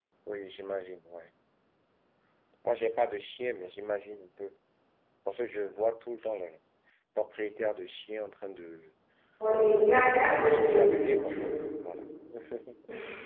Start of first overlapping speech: 10.1 s

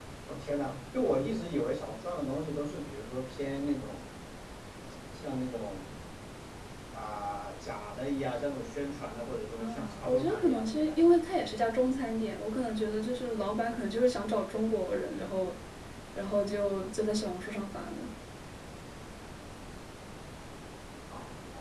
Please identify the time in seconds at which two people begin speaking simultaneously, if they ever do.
9.5 s

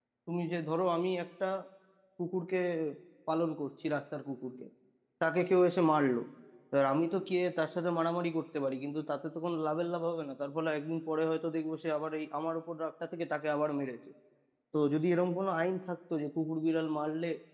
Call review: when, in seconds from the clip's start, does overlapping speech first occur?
none

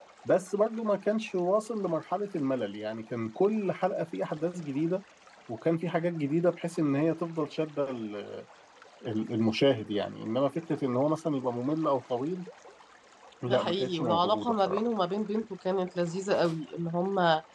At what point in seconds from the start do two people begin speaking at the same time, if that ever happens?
13.5 s

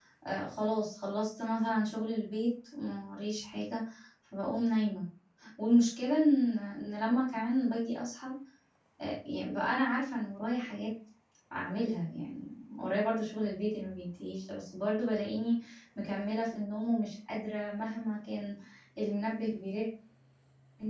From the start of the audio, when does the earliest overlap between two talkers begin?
none

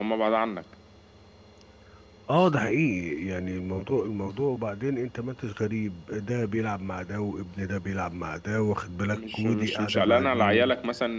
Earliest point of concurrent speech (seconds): 9.1 s

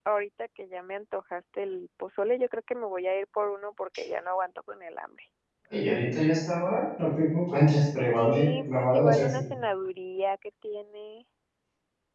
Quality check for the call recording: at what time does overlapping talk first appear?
8.1 s

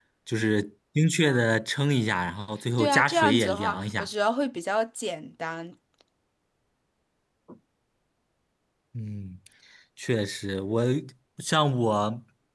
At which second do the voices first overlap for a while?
2.8 s

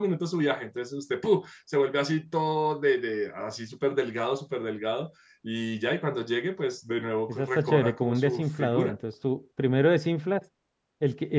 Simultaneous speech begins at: 7.3 s

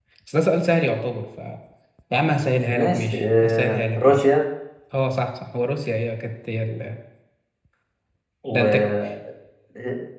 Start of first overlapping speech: 2.8 s

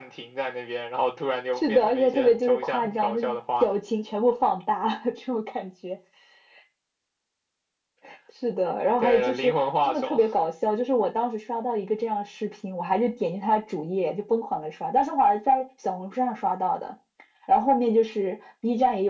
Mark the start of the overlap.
1.6 s

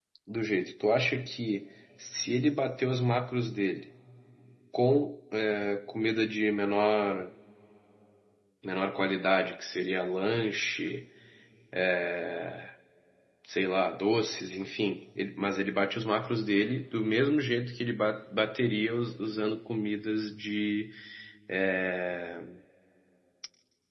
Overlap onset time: none

